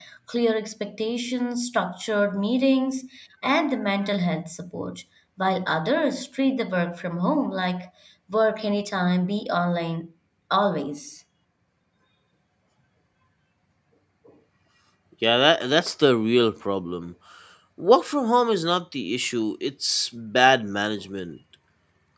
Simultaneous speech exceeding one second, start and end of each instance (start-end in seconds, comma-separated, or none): none